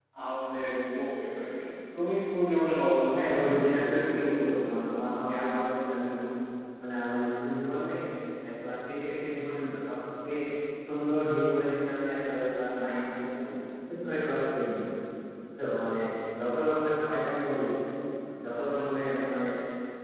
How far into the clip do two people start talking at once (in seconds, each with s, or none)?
3.1 s